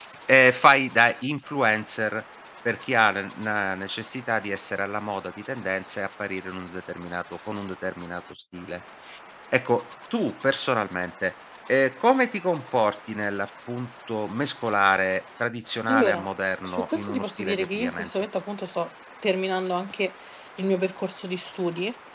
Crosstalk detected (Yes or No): Yes